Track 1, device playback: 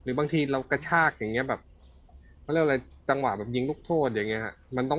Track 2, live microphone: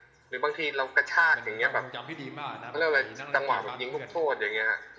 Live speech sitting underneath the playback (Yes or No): Yes